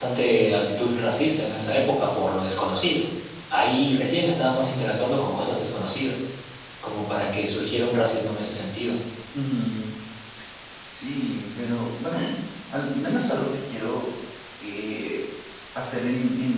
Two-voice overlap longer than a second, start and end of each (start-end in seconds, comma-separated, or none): none